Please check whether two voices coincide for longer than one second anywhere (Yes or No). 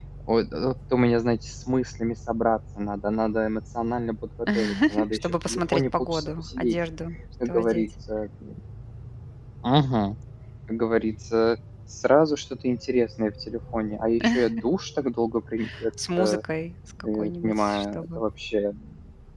Yes